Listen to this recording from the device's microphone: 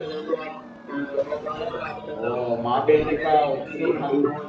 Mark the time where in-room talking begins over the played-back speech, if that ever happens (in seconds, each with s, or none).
2.2 s